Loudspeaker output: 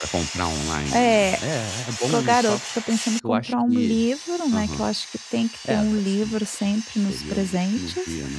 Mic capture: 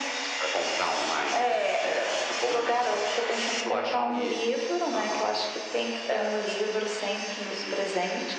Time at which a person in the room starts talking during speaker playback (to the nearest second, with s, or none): none